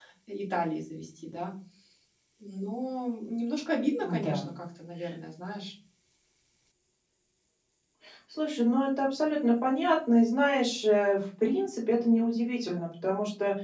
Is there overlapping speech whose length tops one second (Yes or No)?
No